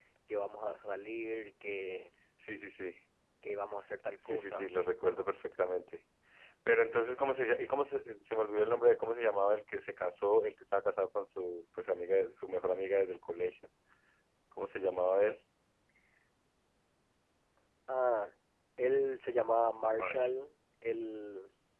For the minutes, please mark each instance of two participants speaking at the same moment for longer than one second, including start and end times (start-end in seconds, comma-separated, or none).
none